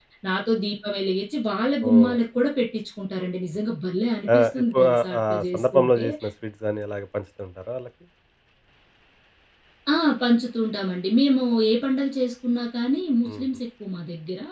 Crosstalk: present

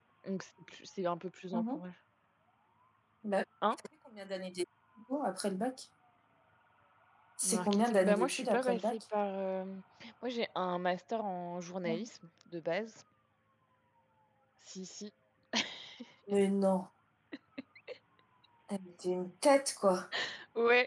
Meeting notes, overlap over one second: present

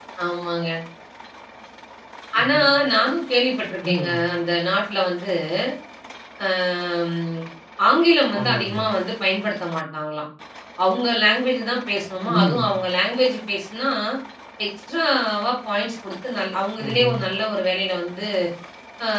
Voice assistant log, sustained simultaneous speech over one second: none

